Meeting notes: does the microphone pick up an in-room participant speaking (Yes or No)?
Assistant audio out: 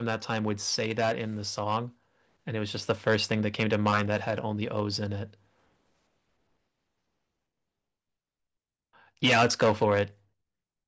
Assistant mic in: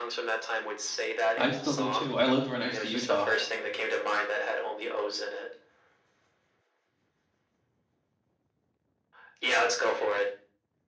Yes